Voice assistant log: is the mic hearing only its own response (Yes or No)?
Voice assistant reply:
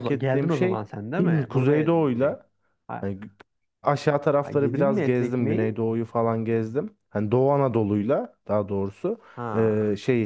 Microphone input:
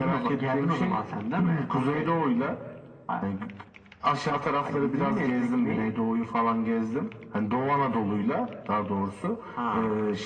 Yes